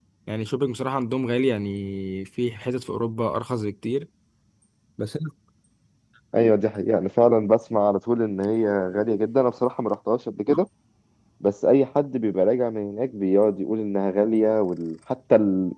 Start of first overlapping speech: none

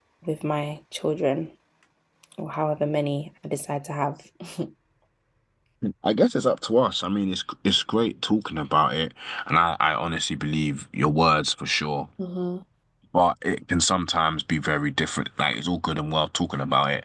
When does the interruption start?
none

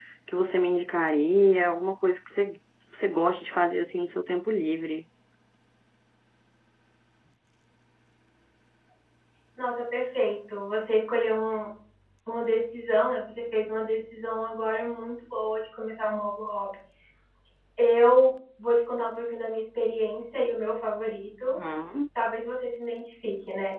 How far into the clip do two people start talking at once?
none

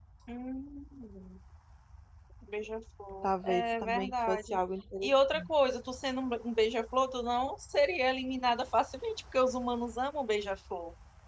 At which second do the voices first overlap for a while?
3.2 s

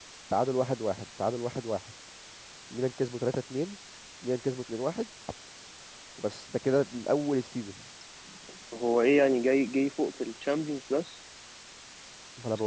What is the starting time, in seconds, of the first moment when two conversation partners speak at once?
none

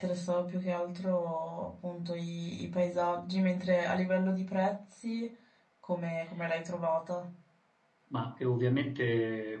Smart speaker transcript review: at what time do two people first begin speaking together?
none

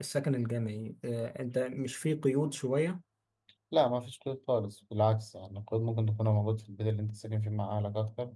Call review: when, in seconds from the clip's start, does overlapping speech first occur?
none

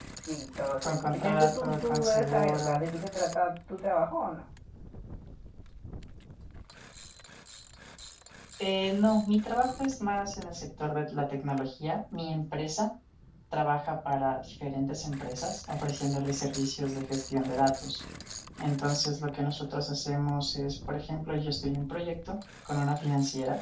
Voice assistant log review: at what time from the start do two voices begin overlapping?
0.8 s

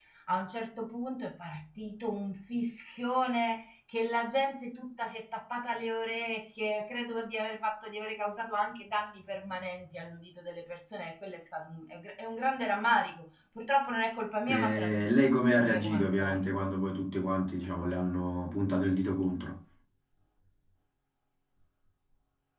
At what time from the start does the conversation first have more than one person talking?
14.5 s

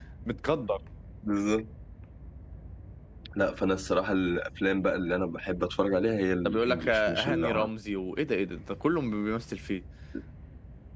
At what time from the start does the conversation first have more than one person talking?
6.4 s

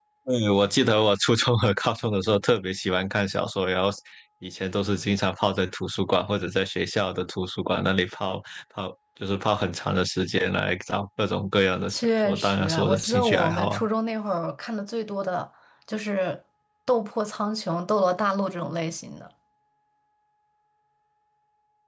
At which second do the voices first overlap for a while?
11.9 s

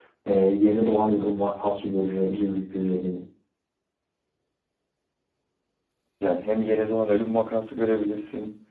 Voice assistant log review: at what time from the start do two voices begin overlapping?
none

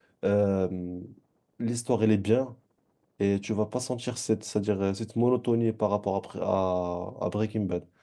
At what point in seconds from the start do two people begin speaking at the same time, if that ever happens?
none

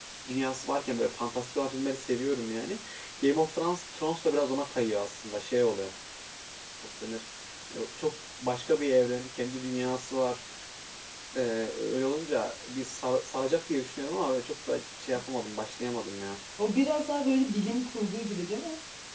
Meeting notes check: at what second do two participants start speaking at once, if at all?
none

